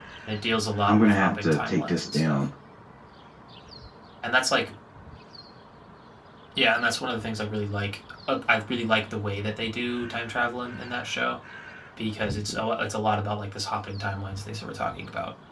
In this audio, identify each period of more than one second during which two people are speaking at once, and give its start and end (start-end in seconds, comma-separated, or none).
0.9-2.4